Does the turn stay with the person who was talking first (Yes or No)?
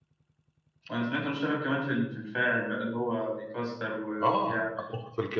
No